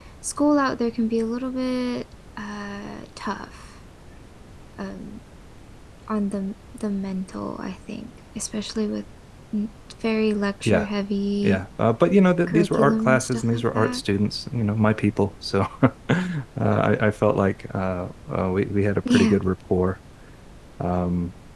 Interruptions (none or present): present